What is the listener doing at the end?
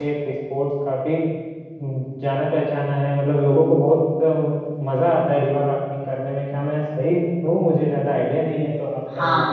taking over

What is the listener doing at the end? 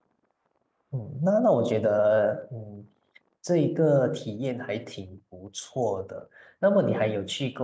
listening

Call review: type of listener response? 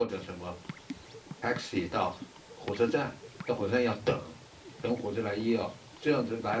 listening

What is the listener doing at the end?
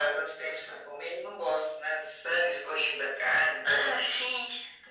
taking over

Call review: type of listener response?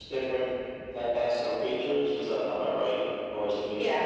taking over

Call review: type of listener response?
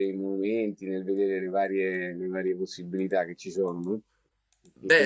taking over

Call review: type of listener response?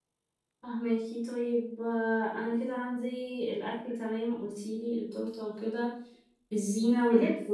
listening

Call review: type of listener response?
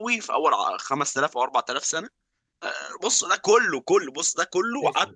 taking over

